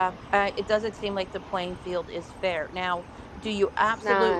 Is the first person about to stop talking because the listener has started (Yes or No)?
No